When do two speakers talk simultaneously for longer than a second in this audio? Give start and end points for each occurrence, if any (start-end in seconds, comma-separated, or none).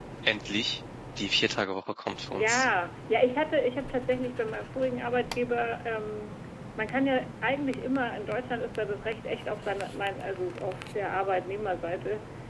none